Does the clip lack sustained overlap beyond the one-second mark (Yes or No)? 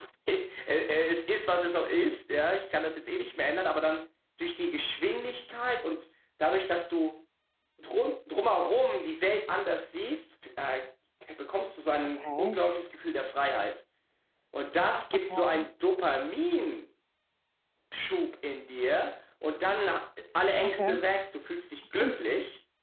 Yes